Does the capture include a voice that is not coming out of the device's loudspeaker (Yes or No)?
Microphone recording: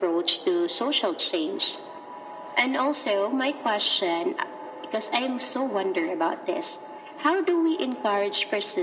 No